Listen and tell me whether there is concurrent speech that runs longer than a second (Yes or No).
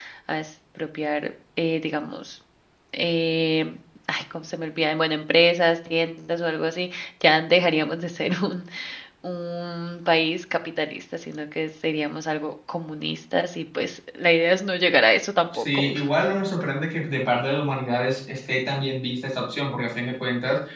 No